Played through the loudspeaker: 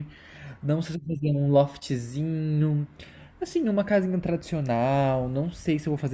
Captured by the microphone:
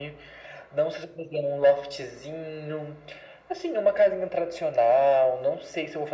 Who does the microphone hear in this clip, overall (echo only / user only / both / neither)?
echo only